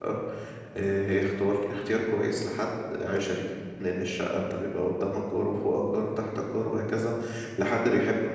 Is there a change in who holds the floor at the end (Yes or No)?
No